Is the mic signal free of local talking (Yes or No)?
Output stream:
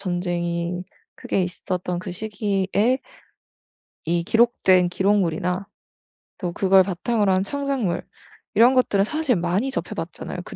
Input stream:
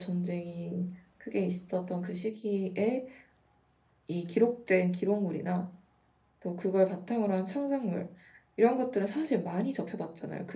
Yes